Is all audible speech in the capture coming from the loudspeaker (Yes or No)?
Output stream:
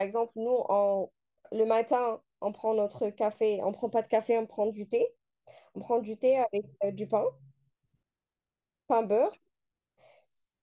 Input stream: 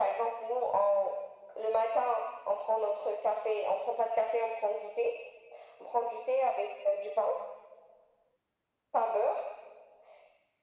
Yes